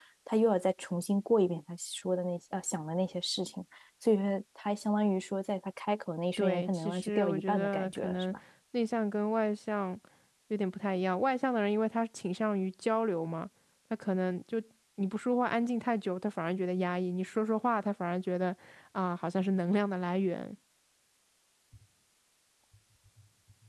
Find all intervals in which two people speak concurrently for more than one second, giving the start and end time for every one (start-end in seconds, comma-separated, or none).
6.4-8.3